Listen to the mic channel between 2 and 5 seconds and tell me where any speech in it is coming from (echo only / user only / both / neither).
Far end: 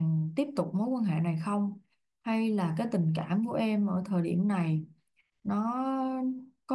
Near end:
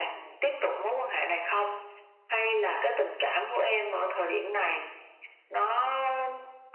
echo only